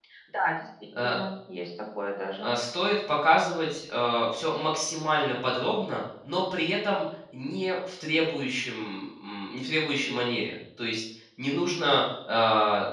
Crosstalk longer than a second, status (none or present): none